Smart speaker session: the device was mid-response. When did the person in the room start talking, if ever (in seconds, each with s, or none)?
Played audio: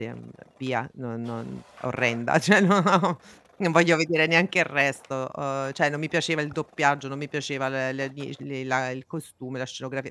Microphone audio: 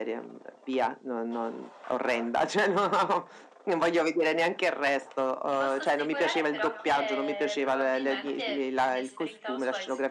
5.5 s